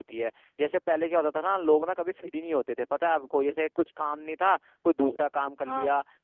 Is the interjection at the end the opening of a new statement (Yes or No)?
No